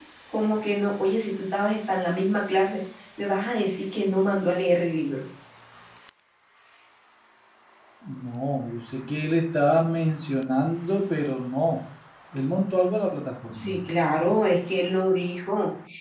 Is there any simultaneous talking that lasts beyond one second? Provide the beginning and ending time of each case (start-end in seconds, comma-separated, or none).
none